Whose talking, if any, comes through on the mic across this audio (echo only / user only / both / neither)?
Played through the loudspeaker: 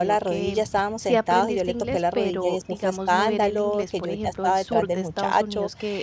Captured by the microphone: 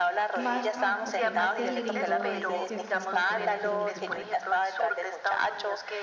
both